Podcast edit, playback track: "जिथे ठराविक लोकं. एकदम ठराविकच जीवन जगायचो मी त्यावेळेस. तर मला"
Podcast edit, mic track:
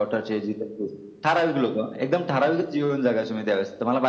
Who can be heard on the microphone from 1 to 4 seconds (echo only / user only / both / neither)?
echo only